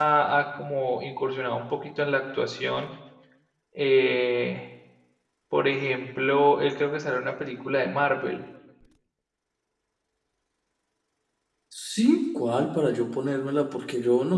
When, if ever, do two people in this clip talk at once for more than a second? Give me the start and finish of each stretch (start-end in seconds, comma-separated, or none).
none